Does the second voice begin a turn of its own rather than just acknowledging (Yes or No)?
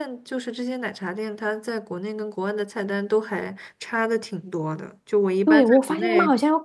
Yes